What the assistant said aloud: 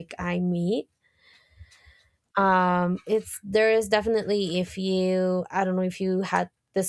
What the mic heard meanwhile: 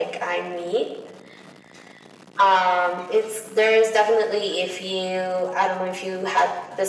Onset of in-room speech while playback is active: none

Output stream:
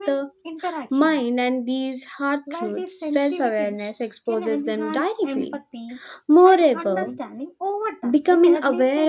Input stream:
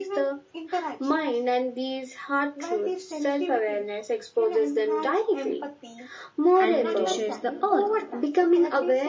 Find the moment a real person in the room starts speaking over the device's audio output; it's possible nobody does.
6.6 s

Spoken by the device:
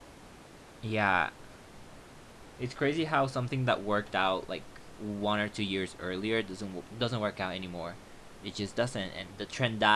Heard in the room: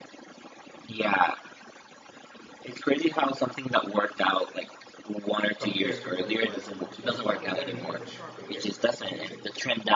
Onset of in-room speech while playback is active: 5.5 s

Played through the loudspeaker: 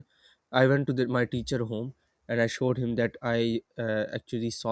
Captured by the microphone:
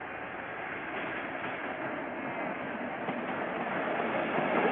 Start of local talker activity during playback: none

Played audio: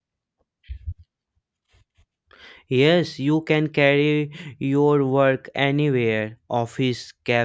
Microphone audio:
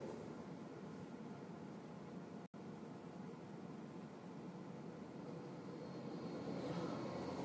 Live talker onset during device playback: none

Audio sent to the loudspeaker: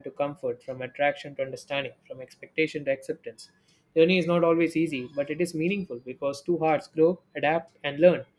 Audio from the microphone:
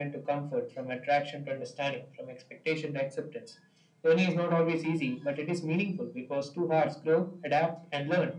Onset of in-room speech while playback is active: none

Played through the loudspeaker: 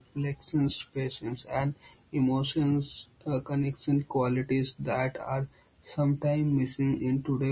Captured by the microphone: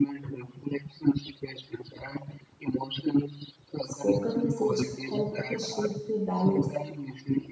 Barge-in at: 3.9 s

